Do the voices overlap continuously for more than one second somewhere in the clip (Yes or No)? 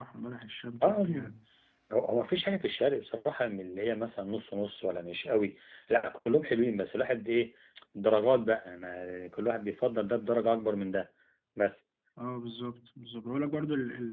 No